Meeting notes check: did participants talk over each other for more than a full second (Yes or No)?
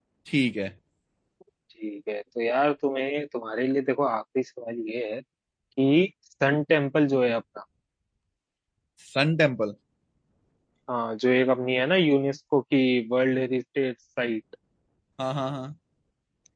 No